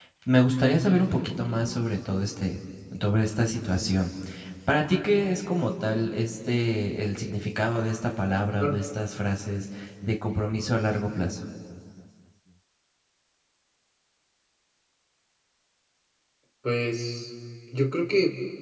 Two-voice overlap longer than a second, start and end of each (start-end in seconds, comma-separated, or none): none